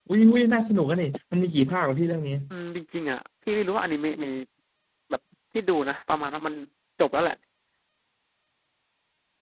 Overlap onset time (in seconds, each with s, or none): none